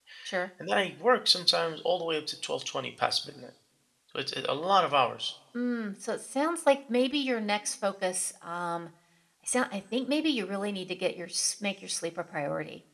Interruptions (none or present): none